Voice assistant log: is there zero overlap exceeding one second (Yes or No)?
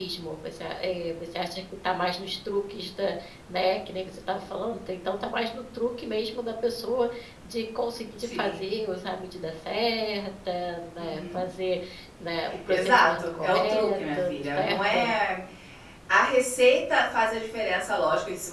No